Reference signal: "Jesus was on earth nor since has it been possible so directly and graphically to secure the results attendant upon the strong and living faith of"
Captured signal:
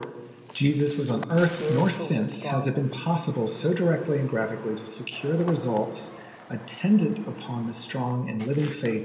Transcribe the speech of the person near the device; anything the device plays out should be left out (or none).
with spiritual endowments,